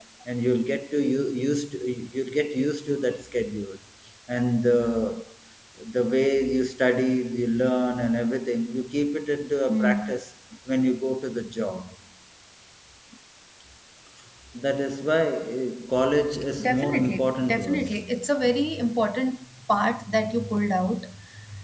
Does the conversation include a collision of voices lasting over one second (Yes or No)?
Yes